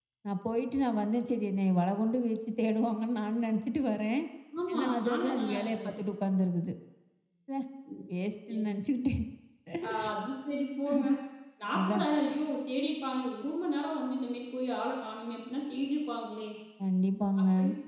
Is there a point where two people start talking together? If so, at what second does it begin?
4.7 s

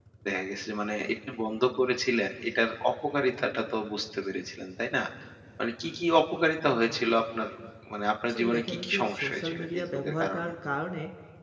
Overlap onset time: 8.3 s

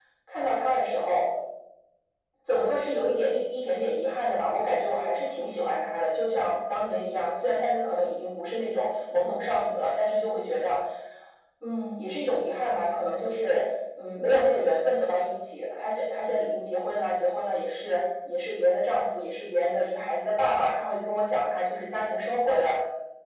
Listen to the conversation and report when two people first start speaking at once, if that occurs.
none

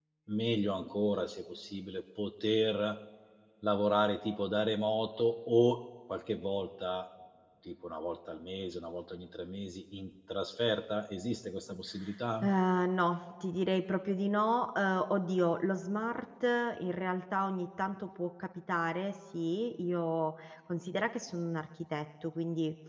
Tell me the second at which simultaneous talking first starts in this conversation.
none

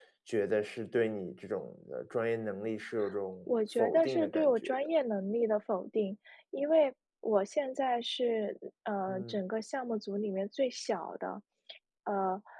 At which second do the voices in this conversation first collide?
3.5 s

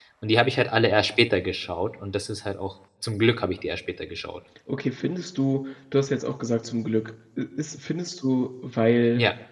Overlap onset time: none

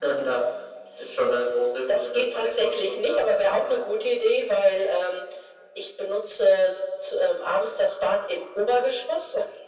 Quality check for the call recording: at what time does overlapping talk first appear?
1.9 s

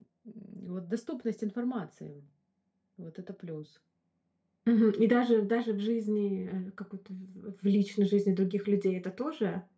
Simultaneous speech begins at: none

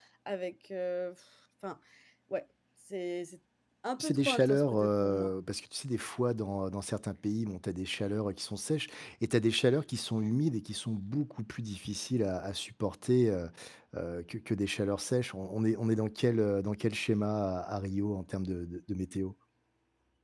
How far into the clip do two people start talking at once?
4.0 s

